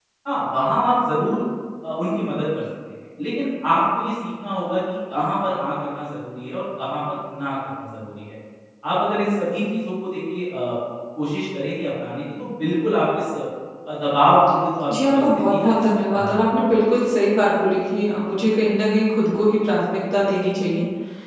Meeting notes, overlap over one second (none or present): present